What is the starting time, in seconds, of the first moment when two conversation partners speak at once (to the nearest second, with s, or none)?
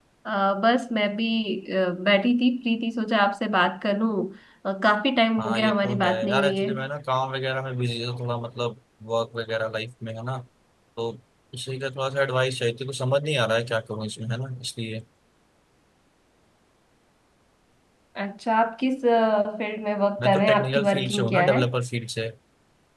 5 s